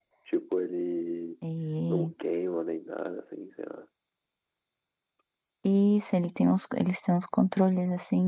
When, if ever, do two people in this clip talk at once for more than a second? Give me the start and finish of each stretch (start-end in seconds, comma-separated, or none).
none